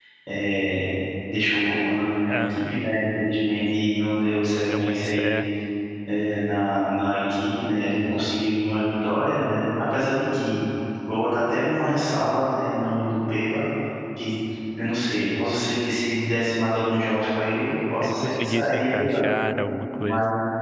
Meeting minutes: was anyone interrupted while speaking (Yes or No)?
Yes